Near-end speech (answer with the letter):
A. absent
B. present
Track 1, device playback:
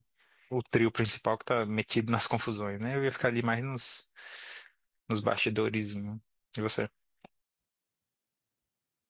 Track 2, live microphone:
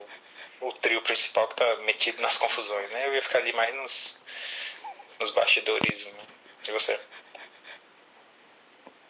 A